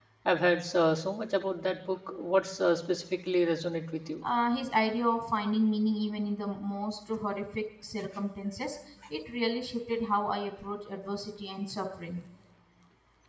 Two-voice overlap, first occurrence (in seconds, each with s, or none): none